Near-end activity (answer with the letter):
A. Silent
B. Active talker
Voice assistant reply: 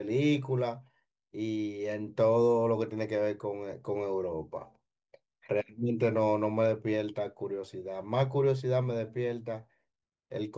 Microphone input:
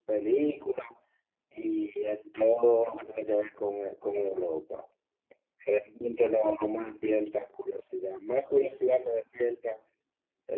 A